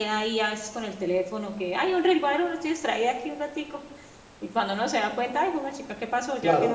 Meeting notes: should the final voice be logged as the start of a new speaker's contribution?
Yes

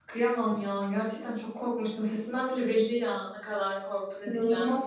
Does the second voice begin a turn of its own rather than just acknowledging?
Yes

